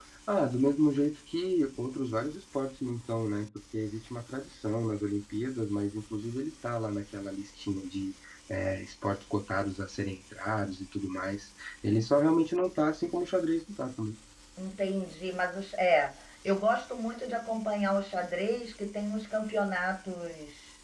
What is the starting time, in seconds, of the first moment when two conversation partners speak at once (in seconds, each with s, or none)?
none